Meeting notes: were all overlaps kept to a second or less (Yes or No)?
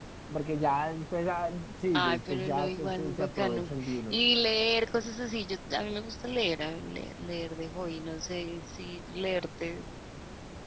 No